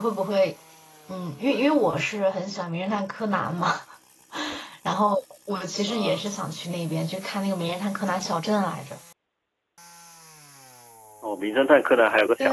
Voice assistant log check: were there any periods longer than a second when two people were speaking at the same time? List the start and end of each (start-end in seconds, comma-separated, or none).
none